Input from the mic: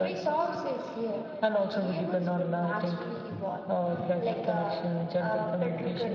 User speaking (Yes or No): No